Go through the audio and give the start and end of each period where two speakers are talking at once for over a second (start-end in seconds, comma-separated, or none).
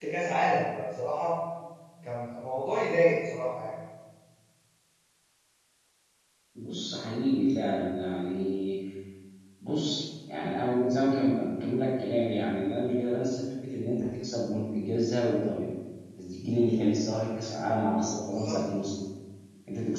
none